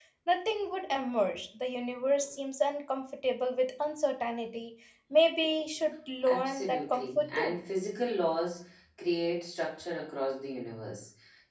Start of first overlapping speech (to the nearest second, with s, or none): 6 s